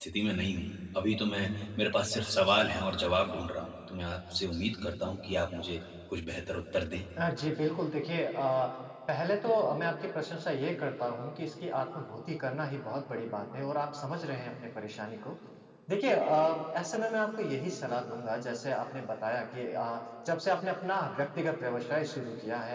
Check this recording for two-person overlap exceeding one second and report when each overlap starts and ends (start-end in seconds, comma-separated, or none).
none